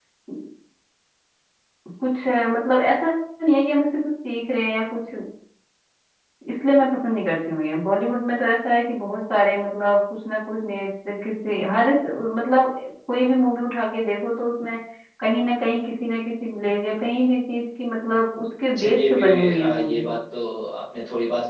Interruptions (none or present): present